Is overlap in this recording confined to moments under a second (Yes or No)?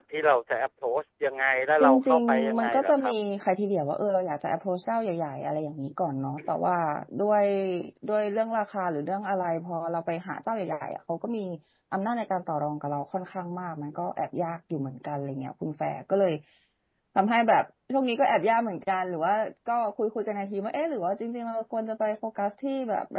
No